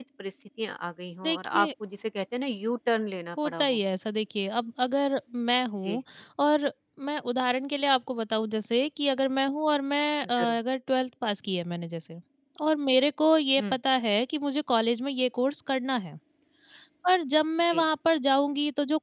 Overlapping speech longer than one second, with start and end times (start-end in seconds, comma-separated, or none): none